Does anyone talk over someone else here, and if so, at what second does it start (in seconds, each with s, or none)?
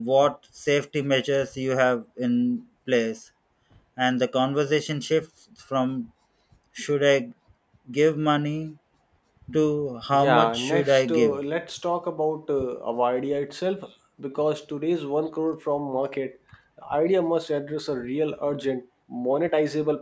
10.1 s